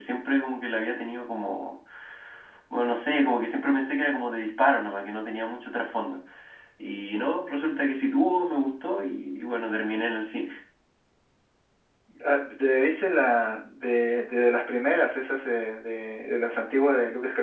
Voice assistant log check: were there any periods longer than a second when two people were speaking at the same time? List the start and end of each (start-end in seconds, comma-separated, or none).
none